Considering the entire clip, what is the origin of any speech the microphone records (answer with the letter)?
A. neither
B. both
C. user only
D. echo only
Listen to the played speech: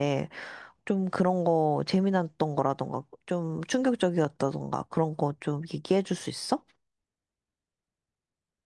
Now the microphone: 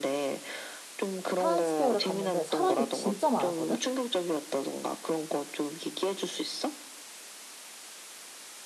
B